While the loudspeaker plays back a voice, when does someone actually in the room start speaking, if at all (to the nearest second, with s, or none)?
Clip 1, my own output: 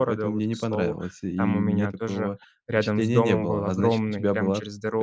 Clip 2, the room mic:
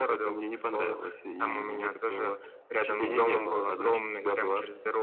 3 s